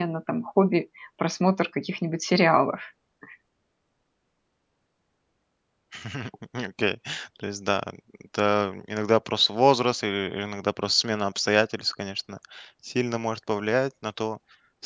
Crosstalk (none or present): none